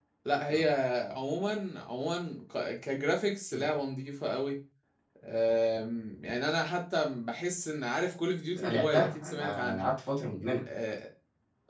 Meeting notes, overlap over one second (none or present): present